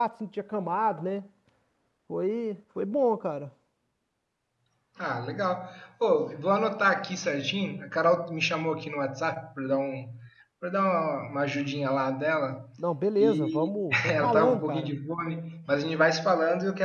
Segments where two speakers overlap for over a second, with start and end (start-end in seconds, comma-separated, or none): 13.2-14.9